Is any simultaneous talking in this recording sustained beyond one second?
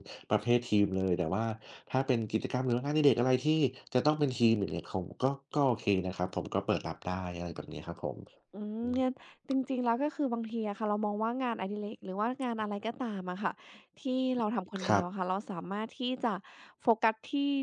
No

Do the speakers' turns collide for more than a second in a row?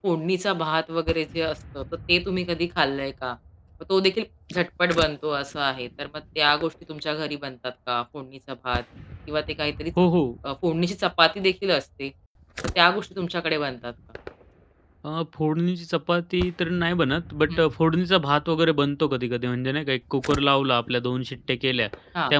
No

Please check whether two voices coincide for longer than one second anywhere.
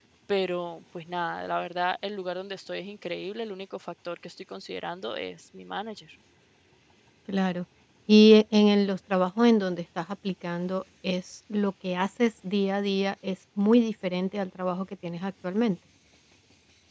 No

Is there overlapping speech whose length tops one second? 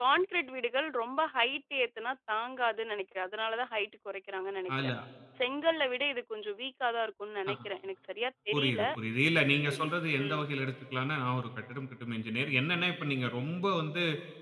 No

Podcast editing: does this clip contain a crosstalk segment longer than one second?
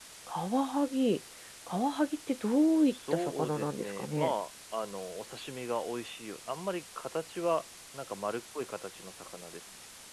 Yes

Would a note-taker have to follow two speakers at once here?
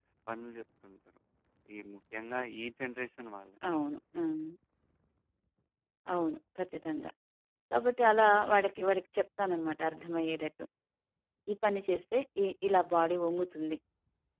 No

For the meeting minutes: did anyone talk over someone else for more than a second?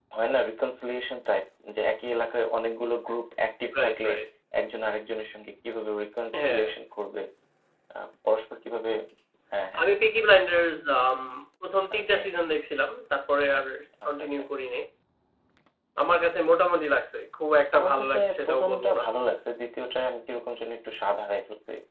Yes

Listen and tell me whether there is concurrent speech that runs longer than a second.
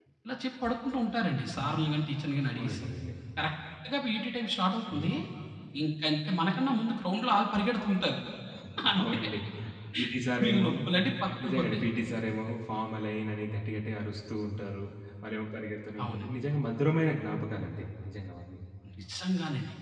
No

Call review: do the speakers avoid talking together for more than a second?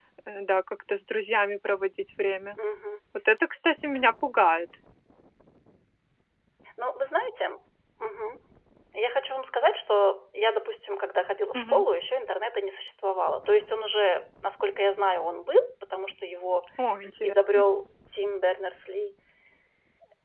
Yes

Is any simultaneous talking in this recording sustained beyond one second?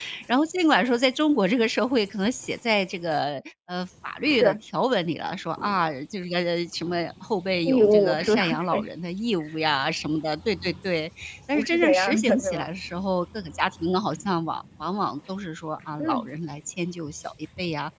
Yes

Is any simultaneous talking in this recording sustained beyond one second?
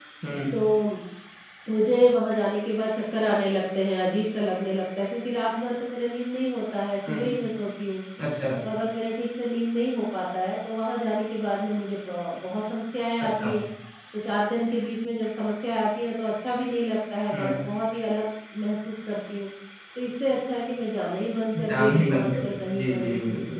Yes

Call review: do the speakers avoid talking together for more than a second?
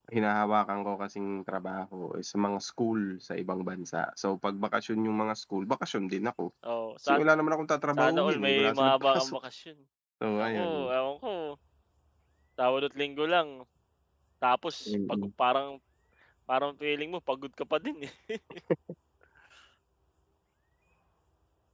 No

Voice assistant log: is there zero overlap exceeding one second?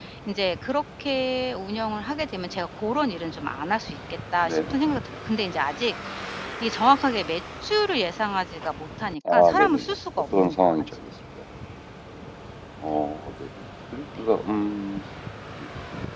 No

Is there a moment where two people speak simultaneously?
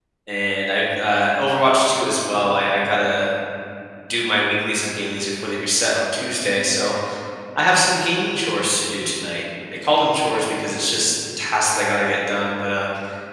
No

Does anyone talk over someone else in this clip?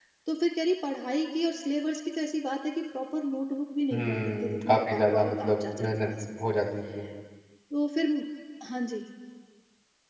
Yes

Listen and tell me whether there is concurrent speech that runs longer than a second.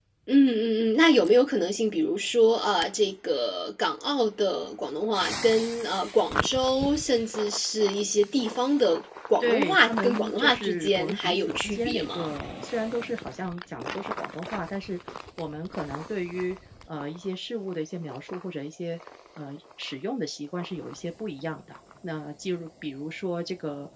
Yes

